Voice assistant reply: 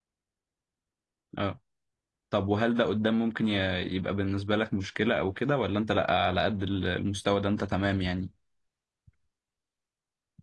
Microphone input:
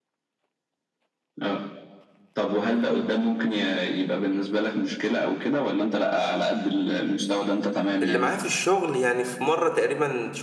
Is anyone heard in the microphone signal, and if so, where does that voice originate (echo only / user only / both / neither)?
both